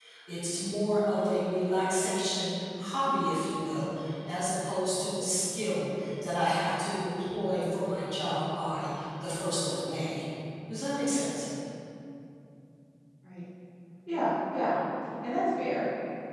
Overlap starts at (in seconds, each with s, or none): none